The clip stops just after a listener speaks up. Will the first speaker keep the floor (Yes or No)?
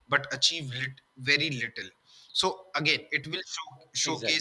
Yes